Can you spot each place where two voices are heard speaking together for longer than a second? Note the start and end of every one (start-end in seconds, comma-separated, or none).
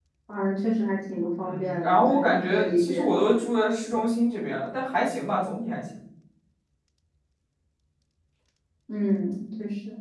1.4-3.1